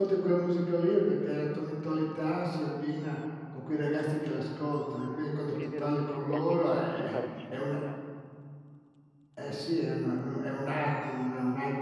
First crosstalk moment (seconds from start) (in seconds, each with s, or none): 5.5 s